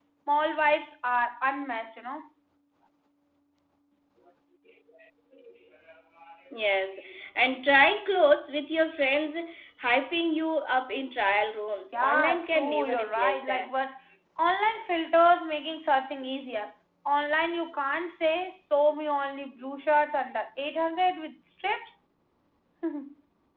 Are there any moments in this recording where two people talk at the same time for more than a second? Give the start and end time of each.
11.9-13.7

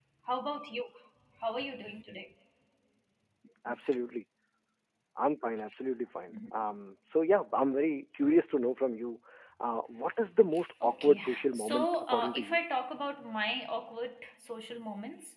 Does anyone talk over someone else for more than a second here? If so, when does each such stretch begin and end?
10.8-12.6

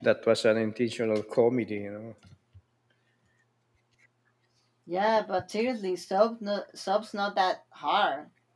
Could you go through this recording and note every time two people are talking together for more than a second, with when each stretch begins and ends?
none

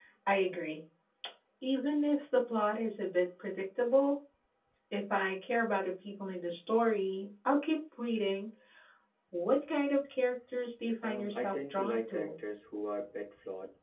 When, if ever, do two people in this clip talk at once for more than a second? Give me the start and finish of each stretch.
11.0-12.3

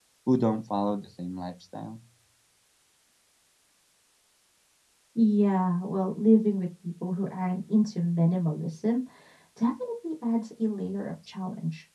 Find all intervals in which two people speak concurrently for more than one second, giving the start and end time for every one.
none

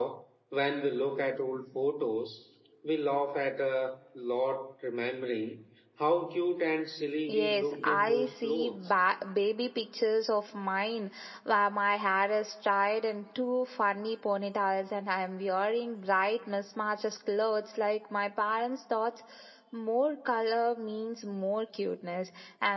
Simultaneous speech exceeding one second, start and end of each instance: 7.3-8.8

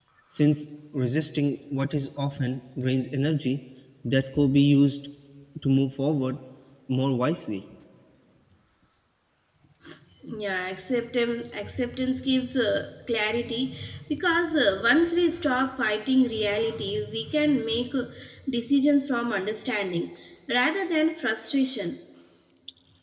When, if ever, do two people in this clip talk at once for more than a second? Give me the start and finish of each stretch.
none

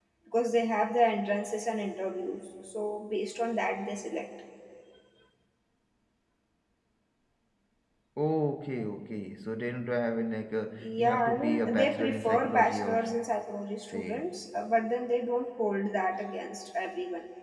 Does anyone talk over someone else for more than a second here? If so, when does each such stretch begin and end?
10.8-13.0

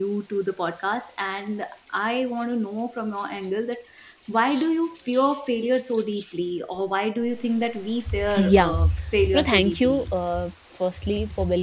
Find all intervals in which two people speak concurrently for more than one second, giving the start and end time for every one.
8.3-10.1

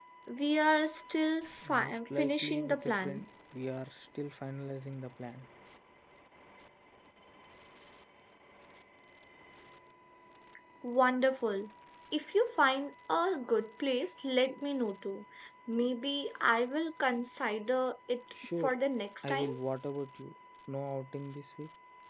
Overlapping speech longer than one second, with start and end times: 1.7-3.3

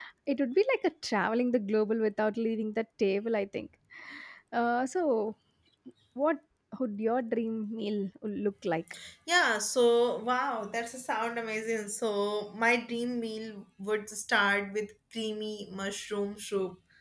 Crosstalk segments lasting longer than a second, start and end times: none

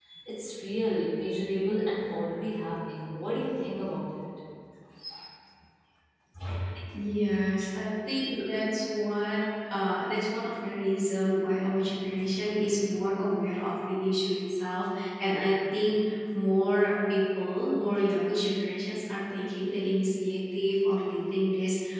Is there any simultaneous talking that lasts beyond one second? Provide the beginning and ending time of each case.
none

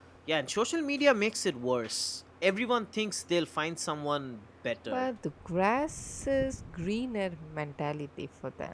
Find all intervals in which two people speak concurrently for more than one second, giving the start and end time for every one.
none

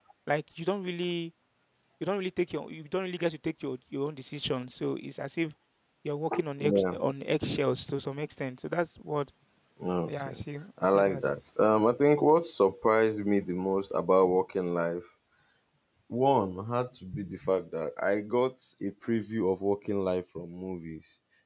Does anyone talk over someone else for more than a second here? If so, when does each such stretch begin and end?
none

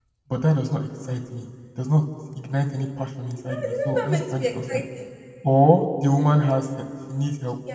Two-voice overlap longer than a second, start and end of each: 3.5-4.8

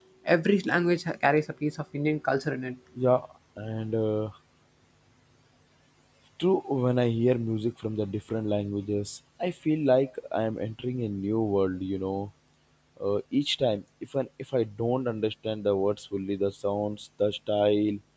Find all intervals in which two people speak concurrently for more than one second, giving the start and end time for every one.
none

